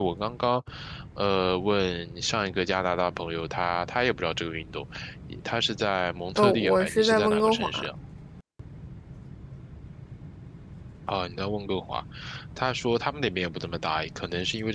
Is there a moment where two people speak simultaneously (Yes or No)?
Yes